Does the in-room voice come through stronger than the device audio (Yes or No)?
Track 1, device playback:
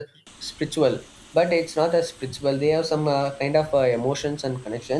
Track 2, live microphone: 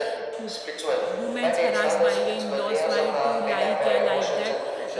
No